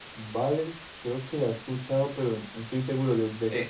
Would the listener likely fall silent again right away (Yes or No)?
No